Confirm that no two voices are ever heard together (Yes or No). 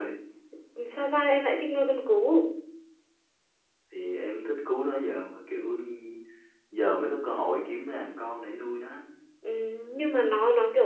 Yes